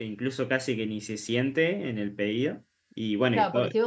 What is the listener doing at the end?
taking over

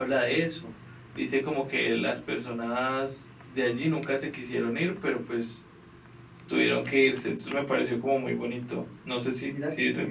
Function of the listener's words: taking over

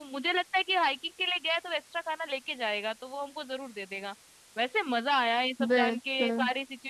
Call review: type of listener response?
listening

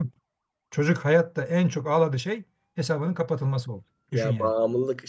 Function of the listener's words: taking over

